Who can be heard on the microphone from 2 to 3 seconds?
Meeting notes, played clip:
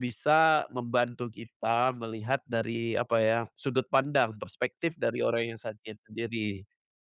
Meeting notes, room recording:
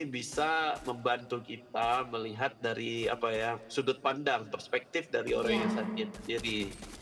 echo only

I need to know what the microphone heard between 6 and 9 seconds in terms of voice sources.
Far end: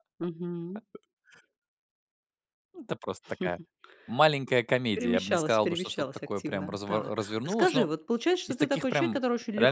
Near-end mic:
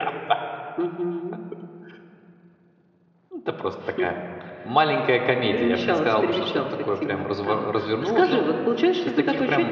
echo only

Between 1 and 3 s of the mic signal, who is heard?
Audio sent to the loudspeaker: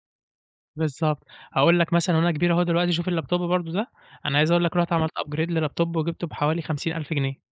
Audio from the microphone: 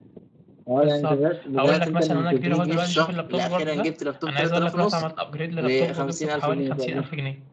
both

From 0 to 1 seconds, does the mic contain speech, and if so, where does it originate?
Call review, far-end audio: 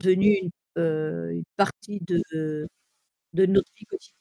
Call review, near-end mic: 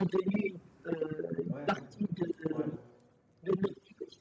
echo only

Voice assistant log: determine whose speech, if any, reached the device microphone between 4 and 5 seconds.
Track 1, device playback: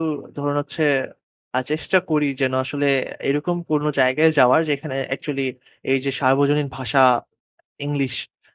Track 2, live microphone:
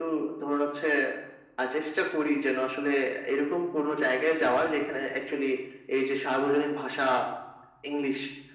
echo only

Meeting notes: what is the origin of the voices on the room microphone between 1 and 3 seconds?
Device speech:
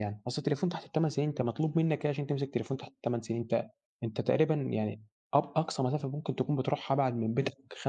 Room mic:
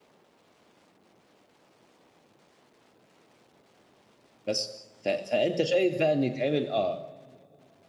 neither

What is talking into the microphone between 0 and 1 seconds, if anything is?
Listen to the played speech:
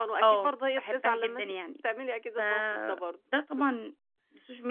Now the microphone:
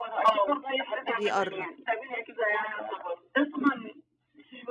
echo only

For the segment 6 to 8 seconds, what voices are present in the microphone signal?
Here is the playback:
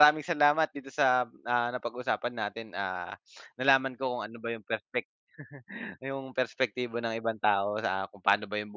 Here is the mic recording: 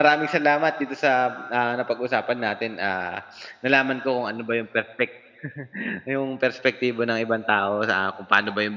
echo only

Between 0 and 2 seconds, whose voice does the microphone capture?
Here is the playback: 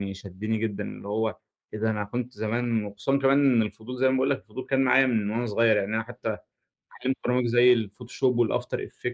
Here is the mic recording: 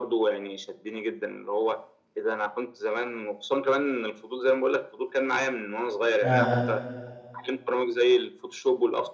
echo only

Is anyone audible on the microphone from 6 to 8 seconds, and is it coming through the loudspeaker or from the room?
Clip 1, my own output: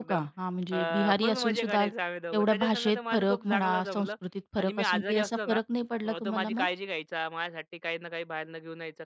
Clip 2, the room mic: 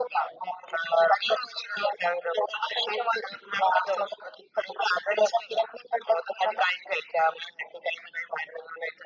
echo only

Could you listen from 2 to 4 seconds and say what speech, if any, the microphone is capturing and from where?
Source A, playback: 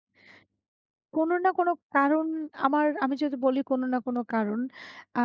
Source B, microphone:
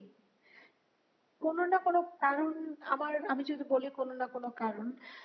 echo only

